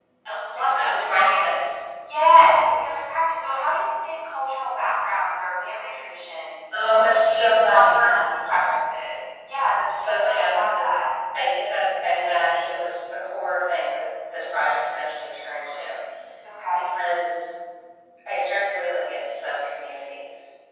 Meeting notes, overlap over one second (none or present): present